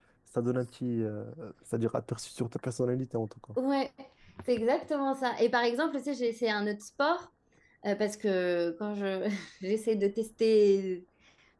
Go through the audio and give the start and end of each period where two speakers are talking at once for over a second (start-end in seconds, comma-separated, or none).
none